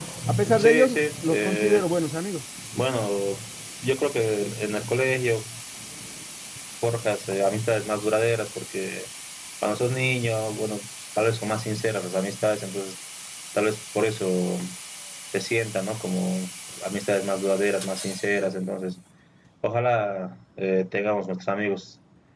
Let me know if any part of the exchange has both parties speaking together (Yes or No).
Yes